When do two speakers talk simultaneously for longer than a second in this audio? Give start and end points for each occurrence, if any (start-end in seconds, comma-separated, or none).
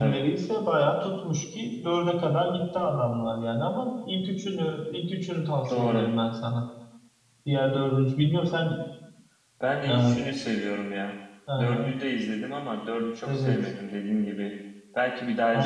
none